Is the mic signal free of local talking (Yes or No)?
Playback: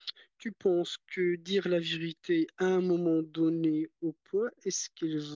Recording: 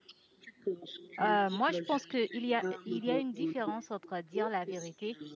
No